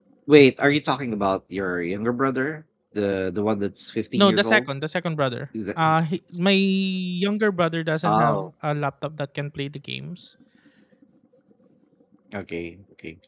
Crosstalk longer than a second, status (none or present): none